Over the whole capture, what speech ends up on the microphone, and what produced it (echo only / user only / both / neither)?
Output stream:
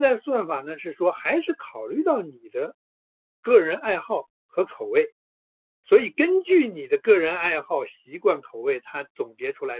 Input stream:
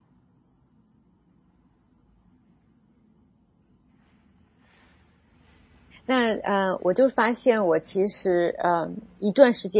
user only